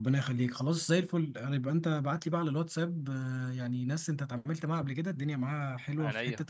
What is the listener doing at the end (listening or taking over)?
listening